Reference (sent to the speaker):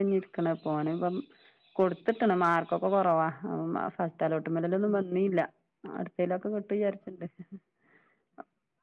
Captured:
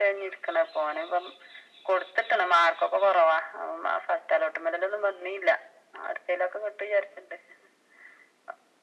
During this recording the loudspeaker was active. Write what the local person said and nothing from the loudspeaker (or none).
none